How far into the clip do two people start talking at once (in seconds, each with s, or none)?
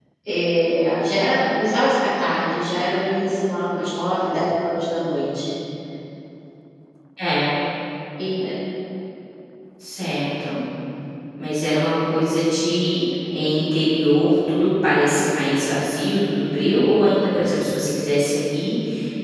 none